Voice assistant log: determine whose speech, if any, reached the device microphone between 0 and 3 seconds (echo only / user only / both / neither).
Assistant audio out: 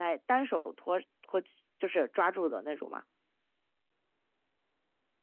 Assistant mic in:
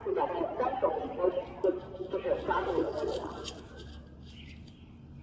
echo only